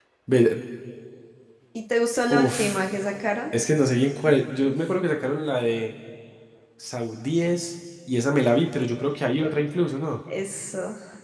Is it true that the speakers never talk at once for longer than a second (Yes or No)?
Yes